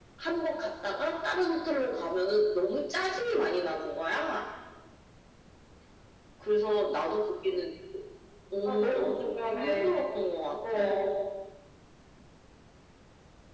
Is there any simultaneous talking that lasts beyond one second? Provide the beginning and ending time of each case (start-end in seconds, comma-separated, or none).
8.7-9.9